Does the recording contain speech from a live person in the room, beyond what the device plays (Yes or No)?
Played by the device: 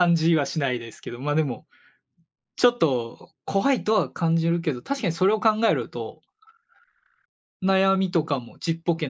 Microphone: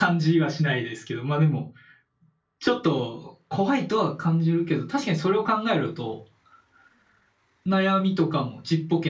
No